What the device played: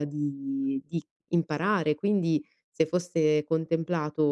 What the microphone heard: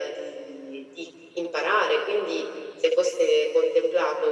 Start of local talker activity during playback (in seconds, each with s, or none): none